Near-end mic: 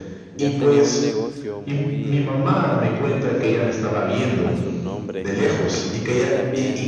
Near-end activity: present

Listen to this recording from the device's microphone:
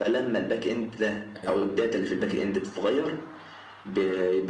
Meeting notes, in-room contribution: present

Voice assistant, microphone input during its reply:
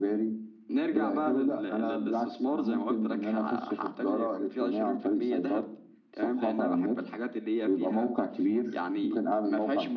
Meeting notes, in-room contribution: none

